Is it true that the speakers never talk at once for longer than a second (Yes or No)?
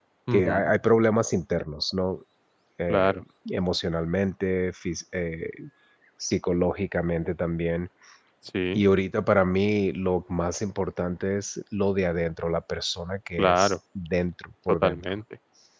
Yes